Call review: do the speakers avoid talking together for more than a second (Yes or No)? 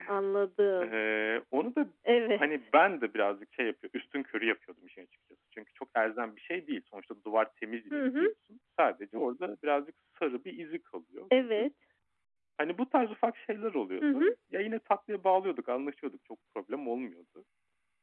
Yes